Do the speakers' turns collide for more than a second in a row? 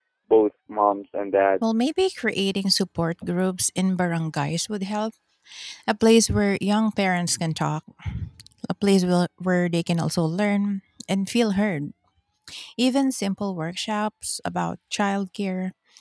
No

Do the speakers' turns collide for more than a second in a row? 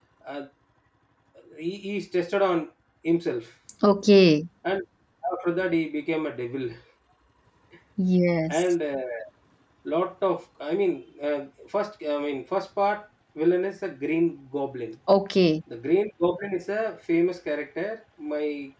No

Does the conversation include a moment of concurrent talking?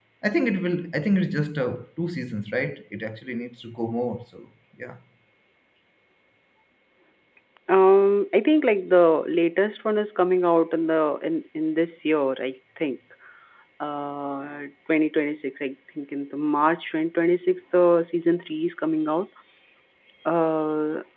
No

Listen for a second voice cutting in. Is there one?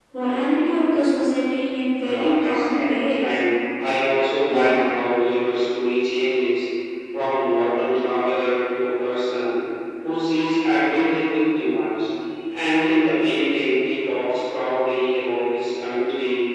Yes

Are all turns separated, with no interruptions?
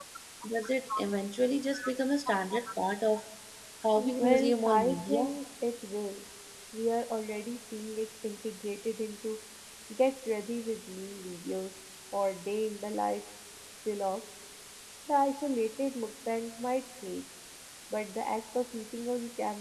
No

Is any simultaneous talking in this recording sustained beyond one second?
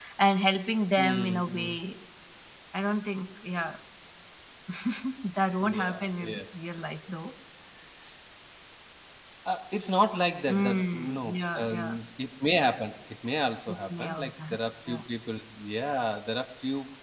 Yes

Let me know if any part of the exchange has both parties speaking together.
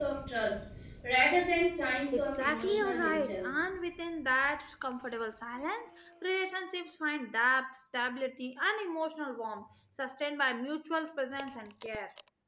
Yes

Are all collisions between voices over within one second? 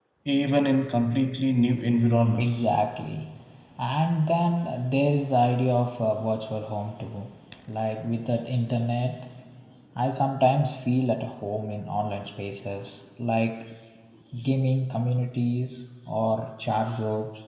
Yes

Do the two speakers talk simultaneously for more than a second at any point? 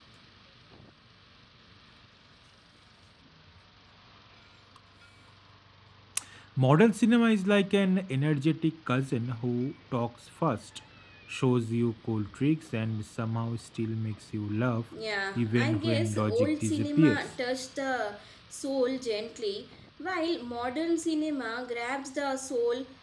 Yes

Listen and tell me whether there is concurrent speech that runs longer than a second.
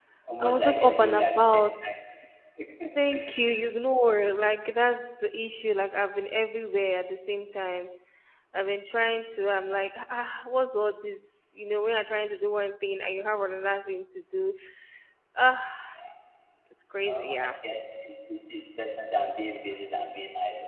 Yes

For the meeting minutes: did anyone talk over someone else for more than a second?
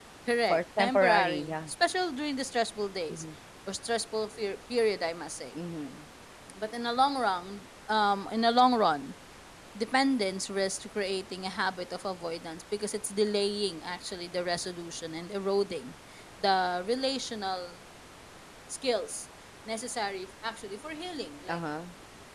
Yes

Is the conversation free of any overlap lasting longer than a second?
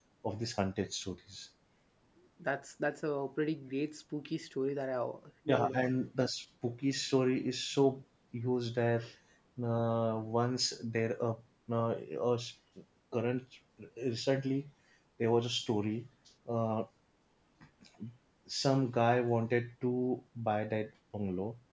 Yes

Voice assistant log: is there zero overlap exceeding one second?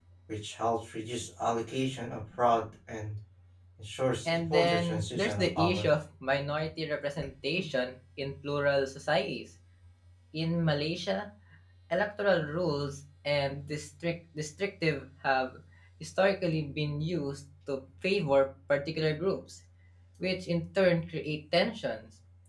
No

